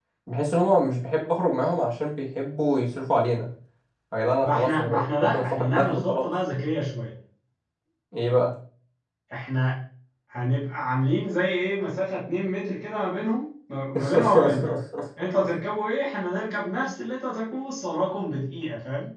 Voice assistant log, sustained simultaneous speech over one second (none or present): present